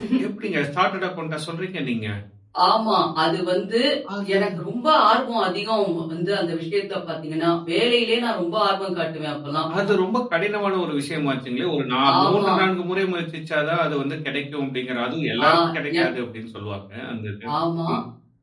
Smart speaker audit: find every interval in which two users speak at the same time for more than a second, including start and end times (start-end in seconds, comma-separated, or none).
none